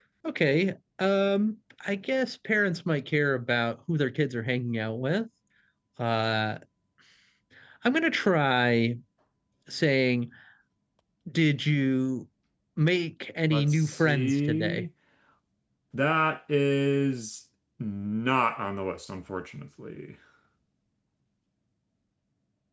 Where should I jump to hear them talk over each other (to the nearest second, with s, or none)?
13 s